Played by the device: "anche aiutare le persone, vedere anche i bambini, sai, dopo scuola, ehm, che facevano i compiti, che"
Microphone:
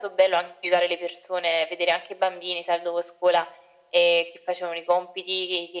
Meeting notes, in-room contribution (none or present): none